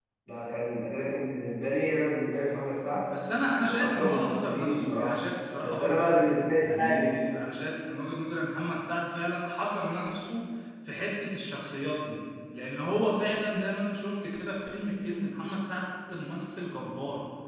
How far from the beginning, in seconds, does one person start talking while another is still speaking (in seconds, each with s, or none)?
3.6 s